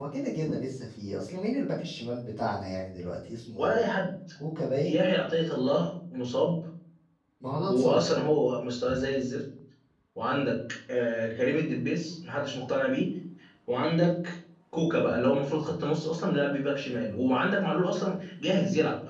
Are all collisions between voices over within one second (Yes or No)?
Yes